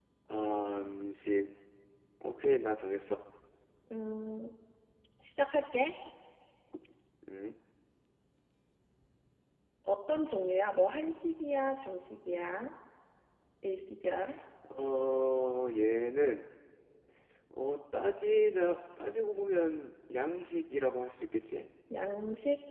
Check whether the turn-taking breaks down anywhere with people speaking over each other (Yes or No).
No